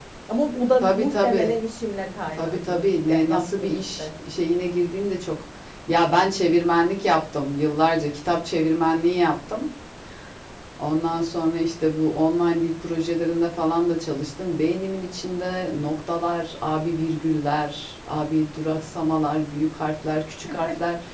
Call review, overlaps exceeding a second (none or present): present